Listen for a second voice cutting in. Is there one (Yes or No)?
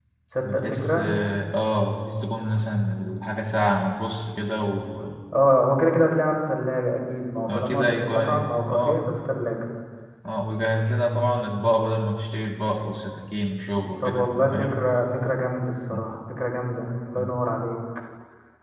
Yes